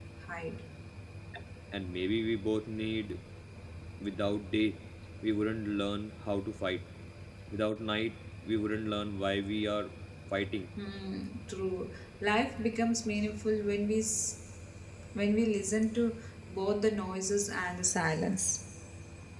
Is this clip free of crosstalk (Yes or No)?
Yes